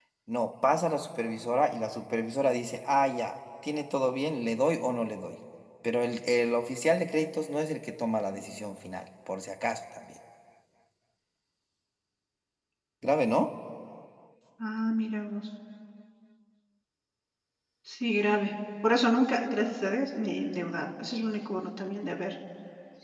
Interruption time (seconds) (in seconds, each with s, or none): none